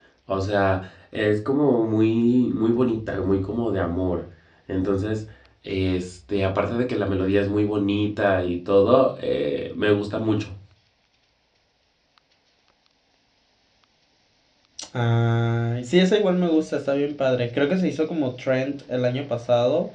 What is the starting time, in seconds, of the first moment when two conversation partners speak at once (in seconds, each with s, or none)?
none